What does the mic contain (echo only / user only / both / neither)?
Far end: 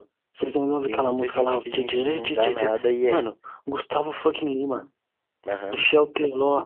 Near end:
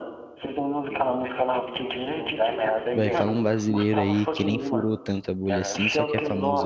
both